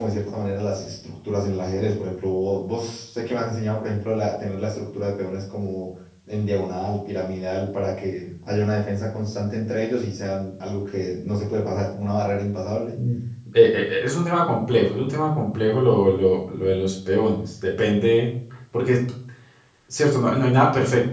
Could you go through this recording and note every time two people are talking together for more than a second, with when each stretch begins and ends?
none

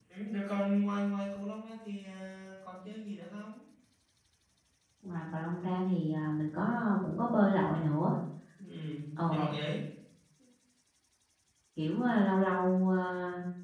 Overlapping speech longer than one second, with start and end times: none

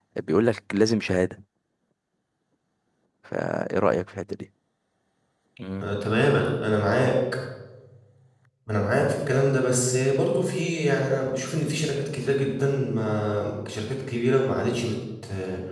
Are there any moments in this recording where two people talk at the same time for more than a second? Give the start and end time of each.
none

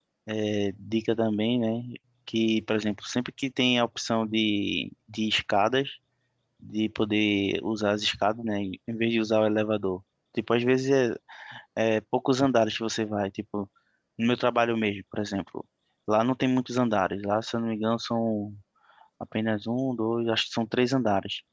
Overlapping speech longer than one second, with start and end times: none

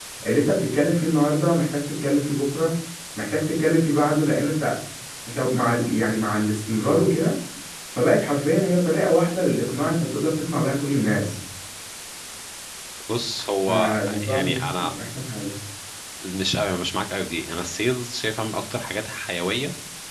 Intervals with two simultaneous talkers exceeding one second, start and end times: 13.7-14.9

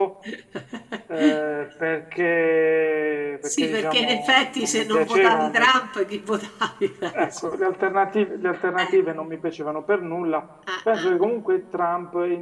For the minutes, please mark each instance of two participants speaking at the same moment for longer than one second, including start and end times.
3.4-5.5

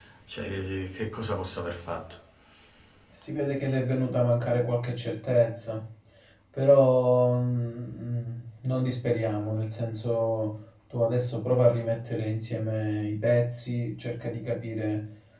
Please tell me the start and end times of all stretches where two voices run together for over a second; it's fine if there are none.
none

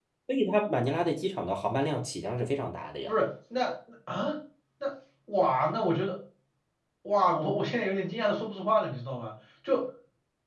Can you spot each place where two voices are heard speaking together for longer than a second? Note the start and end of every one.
none

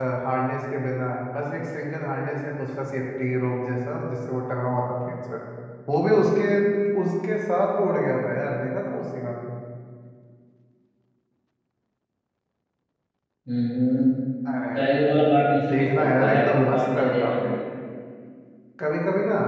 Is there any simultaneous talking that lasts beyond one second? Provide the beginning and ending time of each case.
15.7-17.6

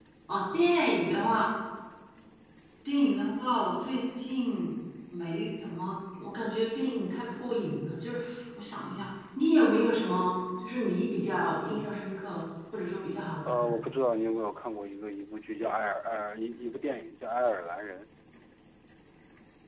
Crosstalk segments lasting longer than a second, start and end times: none

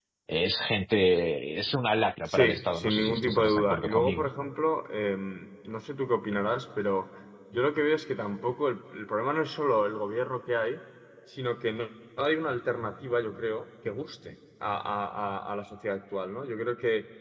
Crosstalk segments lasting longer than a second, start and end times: 2.3-4.3

